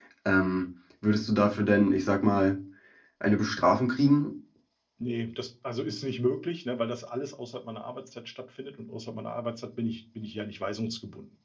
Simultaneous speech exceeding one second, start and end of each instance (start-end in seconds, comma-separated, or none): none